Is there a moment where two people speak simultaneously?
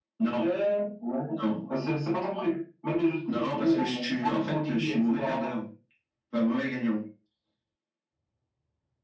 Yes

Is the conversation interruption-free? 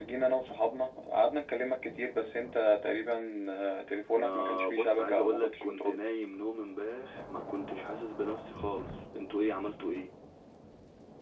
No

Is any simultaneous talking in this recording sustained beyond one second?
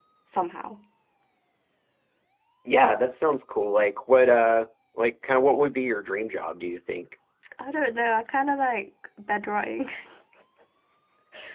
No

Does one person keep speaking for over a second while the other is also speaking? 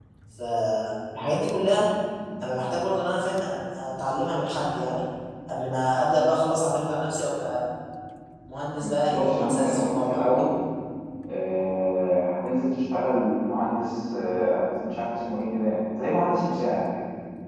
Yes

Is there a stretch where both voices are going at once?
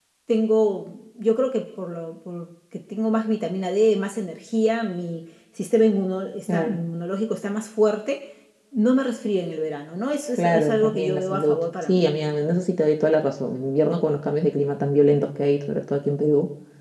Yes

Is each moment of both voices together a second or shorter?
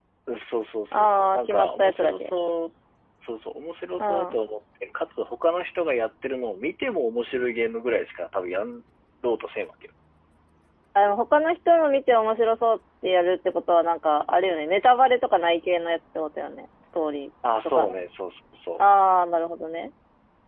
No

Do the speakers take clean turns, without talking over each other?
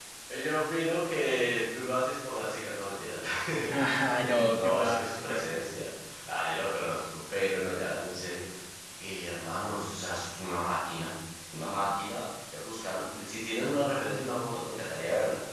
No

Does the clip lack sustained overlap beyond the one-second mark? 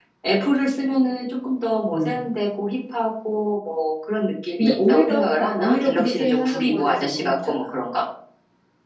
No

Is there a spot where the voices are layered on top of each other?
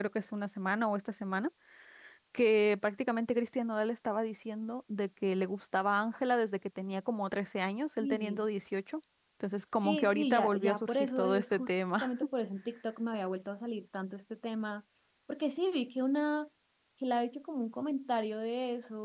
Yes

